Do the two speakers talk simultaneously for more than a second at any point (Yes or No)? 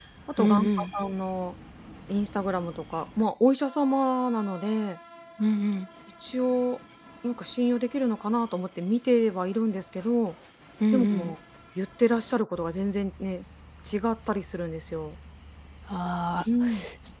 No